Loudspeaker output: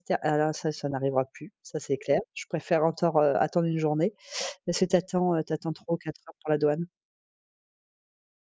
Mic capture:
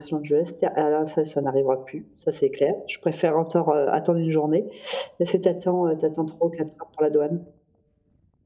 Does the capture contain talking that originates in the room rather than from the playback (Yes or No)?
No